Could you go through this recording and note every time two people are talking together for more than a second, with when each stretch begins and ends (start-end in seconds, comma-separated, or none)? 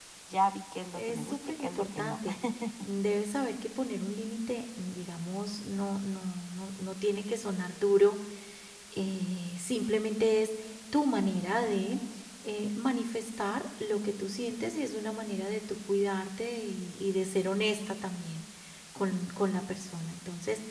1.0-2.2